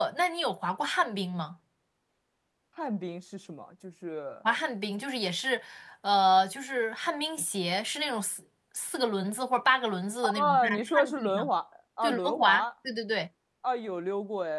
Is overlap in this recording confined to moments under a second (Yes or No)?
No